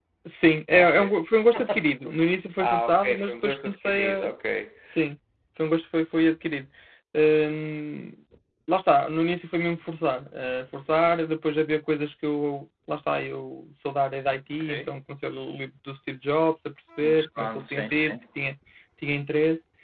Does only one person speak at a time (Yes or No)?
No